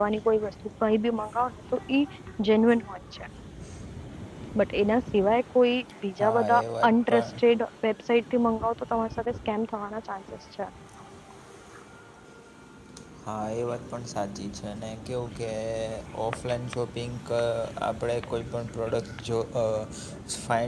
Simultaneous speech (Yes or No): Yes